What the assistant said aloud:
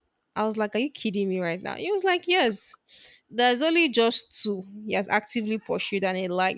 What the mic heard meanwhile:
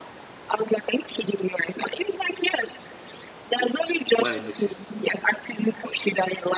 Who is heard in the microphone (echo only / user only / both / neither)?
both